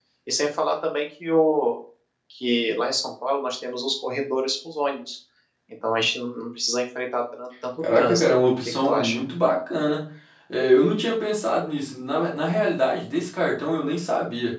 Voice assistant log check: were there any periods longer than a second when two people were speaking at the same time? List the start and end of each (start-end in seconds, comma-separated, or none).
7.8-9.2